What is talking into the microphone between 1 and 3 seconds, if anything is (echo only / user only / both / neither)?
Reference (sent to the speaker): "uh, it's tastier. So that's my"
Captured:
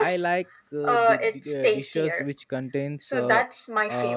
both